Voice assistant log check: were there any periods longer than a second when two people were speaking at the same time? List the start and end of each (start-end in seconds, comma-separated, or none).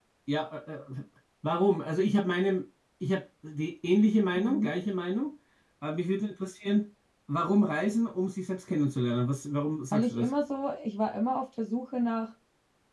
none